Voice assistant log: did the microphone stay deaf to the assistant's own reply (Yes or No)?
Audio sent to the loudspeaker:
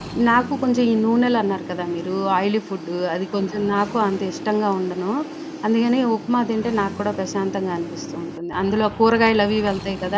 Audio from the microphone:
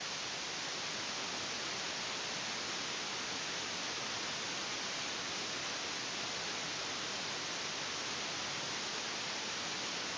Yes